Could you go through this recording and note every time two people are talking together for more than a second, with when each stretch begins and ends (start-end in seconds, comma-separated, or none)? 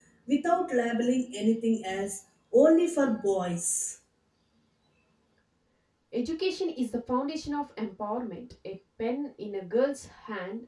none